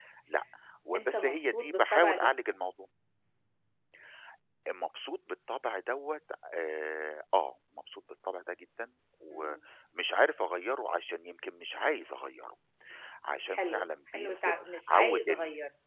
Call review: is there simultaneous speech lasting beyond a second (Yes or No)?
Yes